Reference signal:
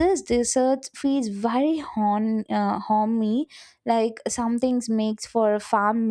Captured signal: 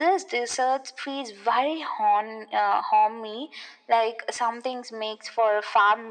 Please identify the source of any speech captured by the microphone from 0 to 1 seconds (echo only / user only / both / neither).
echo only